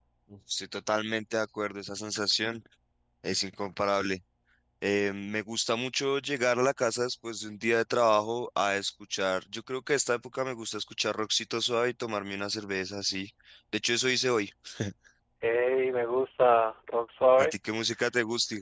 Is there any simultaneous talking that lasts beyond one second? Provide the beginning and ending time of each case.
none

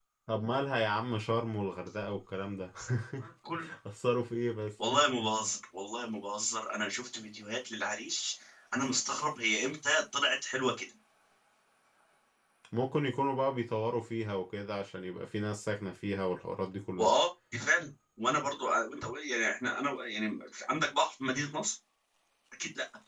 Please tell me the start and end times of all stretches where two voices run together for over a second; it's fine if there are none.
none

